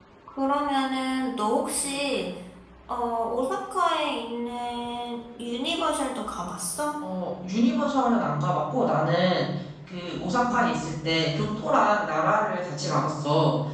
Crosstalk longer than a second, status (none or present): none